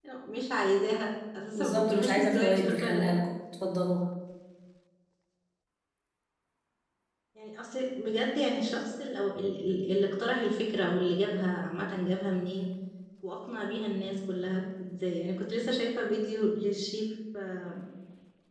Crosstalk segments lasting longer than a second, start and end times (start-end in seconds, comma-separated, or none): 1.6-3.1